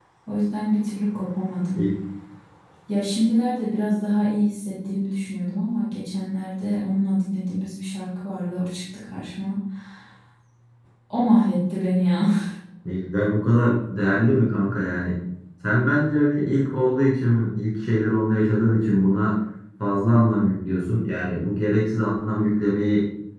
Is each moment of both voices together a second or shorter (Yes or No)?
Yes